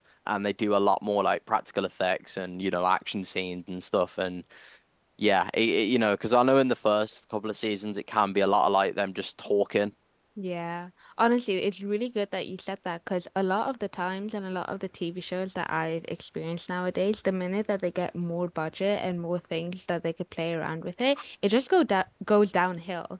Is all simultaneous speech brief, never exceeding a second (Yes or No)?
Yes